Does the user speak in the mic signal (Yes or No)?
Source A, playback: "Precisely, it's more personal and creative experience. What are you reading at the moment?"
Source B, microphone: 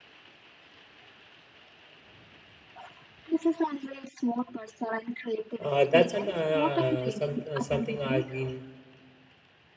Yes